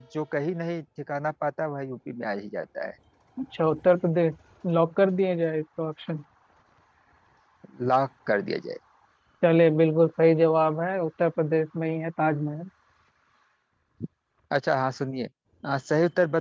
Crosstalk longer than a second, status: none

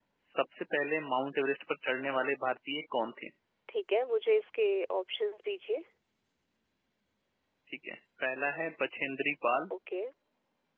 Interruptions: none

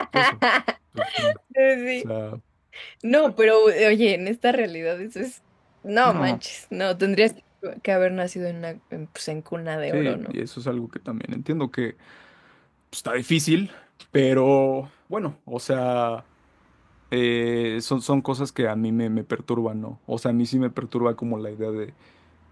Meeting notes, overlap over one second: none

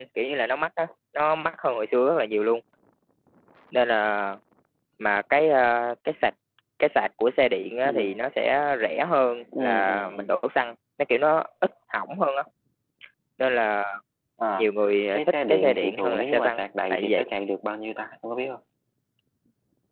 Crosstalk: present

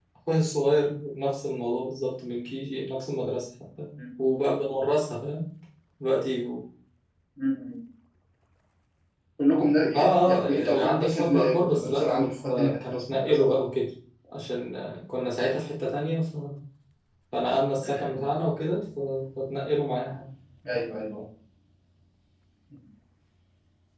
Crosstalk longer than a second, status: present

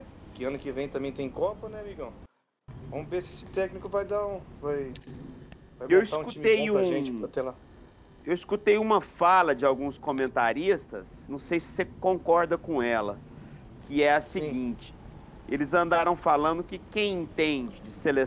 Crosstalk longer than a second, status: present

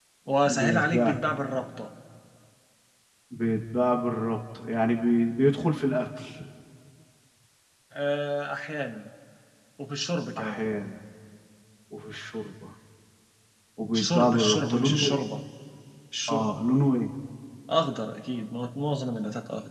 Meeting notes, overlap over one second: present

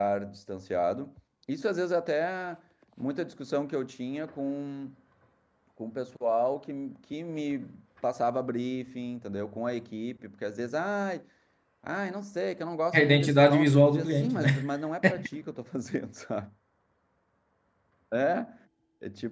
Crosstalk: present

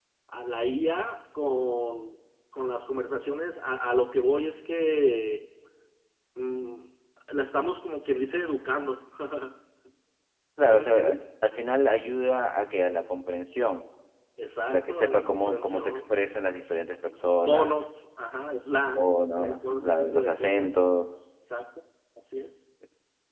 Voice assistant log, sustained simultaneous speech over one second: present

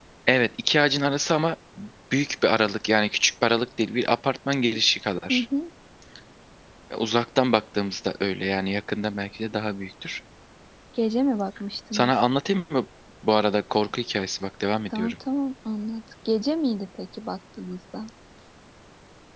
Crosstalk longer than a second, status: none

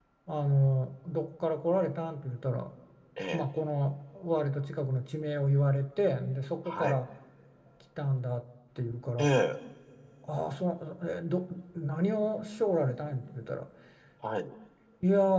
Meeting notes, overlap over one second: none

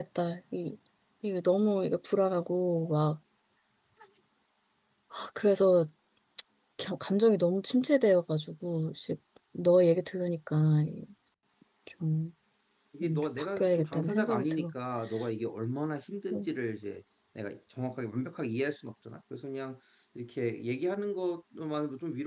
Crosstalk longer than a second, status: present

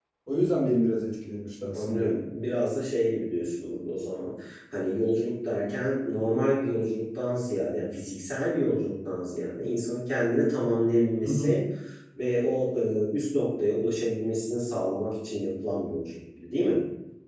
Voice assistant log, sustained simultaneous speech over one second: none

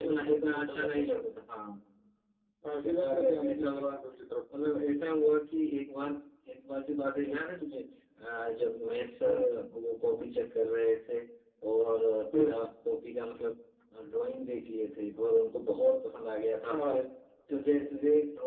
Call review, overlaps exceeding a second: present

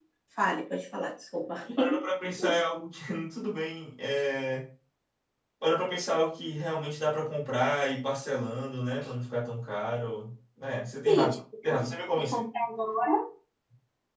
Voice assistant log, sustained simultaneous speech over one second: present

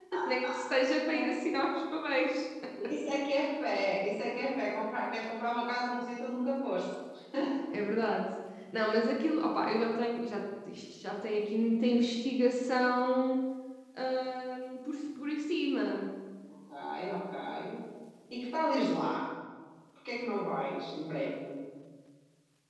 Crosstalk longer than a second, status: none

